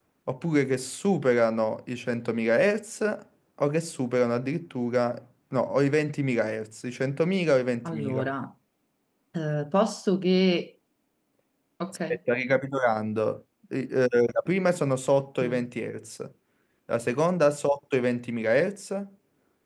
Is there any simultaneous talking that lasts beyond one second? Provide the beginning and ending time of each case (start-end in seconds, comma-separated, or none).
none